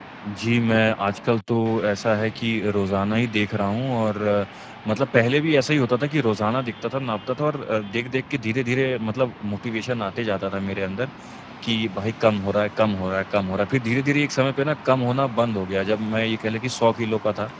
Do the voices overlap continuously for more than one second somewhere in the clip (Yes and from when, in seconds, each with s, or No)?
No